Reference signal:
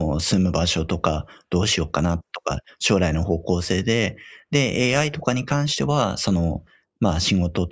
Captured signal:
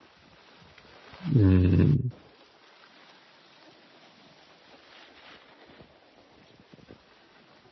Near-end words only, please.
うーん。

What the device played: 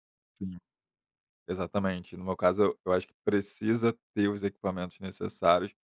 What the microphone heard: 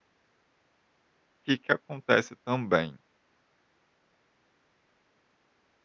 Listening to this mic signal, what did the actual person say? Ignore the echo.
que que acontece também,

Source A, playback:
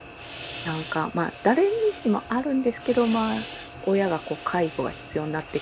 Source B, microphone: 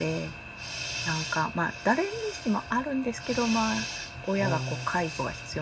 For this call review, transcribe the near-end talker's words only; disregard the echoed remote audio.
あ

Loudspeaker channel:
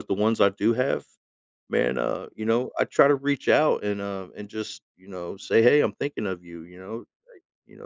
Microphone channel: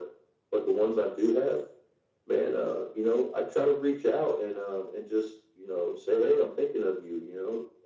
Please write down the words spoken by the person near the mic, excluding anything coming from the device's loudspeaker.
none

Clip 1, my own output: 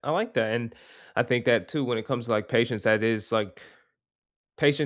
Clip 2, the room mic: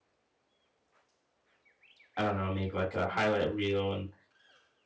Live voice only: I don't know, maybe like a highlight reel and

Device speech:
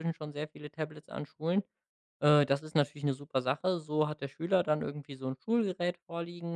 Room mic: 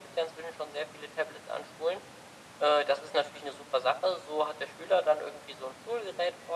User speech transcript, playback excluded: none

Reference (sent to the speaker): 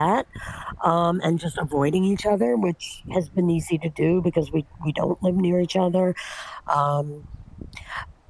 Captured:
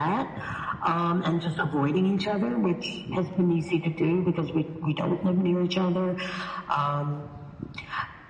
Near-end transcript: none

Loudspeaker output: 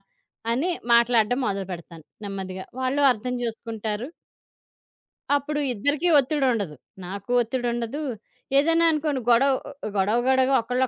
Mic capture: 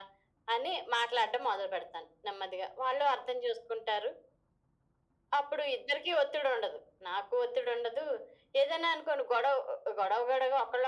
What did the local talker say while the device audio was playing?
none

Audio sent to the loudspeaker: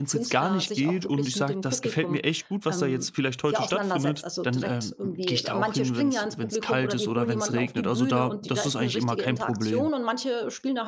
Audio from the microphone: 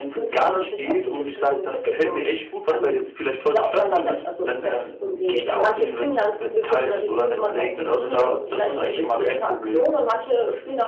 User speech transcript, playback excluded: none

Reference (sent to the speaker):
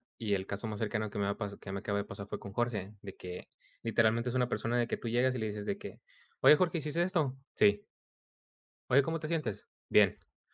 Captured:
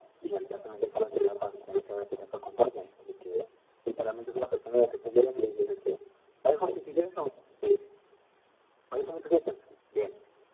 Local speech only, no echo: none

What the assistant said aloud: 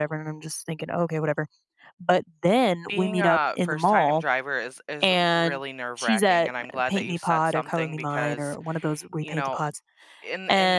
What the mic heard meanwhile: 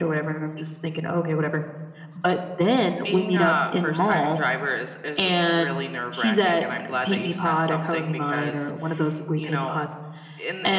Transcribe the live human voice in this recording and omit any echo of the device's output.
none

